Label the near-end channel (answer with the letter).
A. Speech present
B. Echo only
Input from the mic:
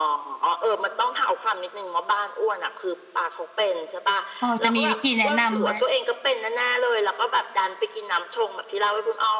A